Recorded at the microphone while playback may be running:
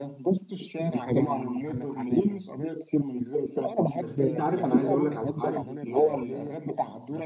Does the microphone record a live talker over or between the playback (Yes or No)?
Yes